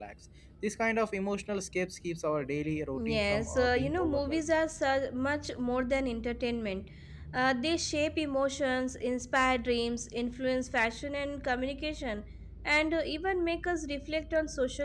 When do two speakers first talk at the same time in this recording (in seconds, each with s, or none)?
2.9 s